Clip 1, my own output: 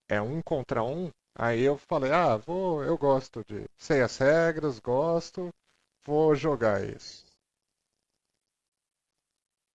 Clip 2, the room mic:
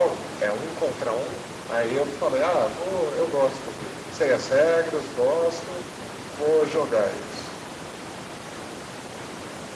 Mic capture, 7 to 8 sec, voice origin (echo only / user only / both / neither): echo only